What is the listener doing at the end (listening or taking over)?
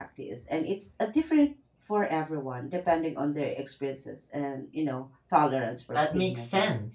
taking over